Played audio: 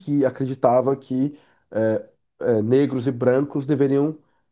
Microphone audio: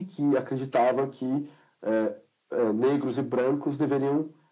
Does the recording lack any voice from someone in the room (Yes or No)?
Yes